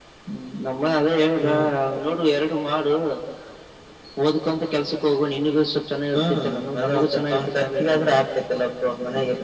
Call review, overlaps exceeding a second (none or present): present